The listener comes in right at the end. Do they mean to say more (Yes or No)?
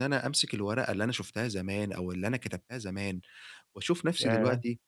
No